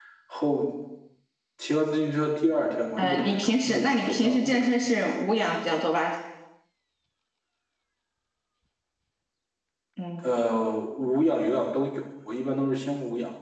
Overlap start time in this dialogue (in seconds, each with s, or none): 3.0 s